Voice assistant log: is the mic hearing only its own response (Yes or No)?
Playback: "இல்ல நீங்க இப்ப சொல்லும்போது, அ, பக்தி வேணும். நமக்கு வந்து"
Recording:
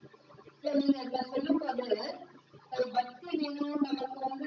Yes